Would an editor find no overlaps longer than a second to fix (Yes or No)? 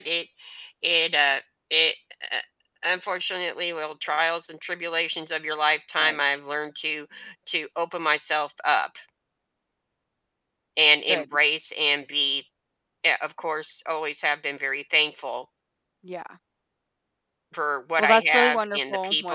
No